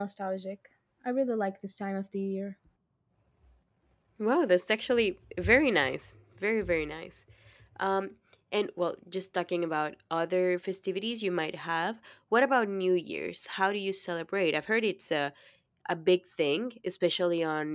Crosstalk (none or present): none